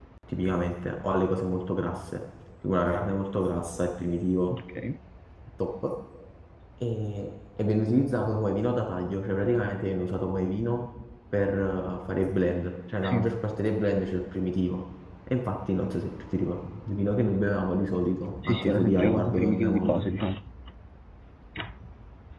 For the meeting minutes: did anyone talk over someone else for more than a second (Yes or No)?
Yes